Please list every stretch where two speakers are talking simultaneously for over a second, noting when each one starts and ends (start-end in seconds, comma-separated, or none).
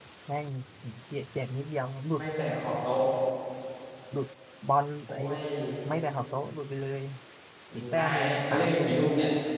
7.7-9.1